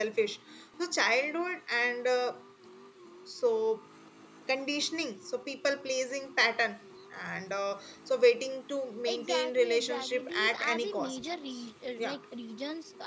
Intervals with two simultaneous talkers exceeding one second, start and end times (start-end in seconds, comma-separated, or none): 9.1-11.3